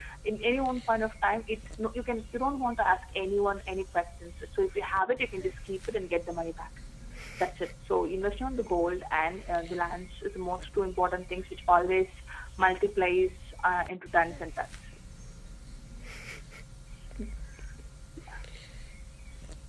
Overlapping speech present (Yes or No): No